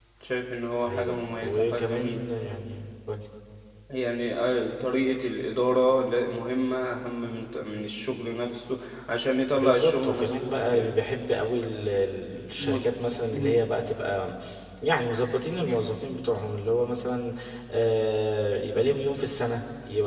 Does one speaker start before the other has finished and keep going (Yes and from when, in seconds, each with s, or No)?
Yes, from 0.9 s